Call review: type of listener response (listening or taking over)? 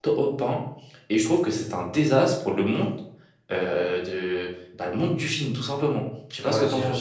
taking over